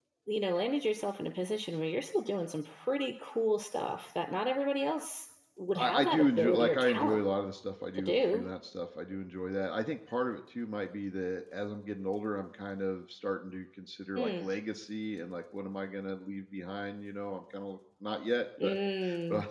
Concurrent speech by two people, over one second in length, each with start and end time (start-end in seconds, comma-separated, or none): 5.8-7.2